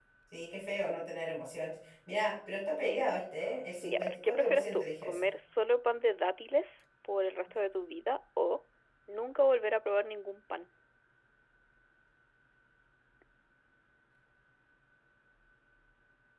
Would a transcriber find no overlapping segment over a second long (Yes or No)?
No